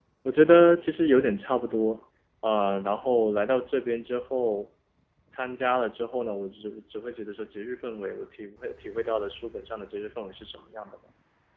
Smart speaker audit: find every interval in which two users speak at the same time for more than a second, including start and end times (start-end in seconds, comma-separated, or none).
none